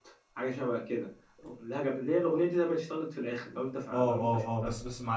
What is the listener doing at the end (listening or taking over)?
taking over